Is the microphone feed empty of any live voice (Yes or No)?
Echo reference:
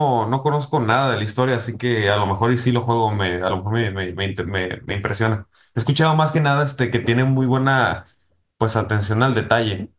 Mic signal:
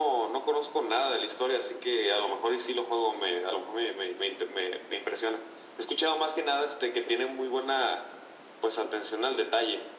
Yes